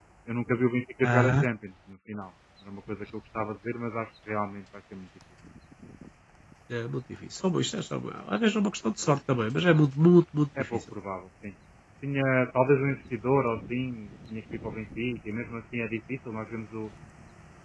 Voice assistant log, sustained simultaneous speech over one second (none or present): none